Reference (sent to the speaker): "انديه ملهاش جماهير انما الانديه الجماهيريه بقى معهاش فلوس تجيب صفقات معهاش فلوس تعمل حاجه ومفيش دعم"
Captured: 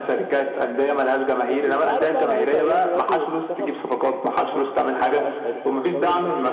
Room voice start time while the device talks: 1.4 s

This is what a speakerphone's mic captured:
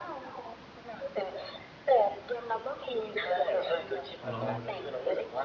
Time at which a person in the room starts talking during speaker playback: 4.2 s

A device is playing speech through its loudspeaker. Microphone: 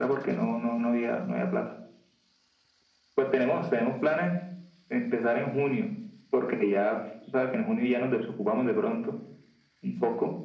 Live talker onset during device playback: none

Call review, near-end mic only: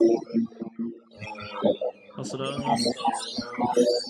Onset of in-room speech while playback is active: 2.2 s

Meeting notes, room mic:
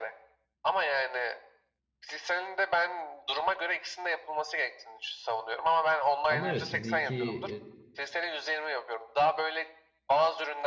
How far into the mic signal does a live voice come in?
6.3 s

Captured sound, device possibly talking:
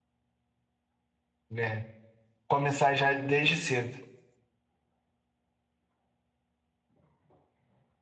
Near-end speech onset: 1.6 s

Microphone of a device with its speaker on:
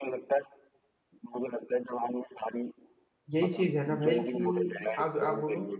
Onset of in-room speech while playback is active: 3.3 s

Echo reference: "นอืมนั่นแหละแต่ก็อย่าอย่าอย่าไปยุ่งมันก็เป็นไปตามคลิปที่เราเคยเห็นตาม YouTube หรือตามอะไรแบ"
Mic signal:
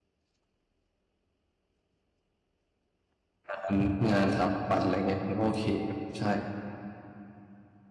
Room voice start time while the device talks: 3.5 s

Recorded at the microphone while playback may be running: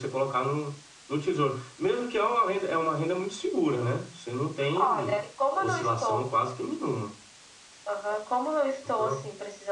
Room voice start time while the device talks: none

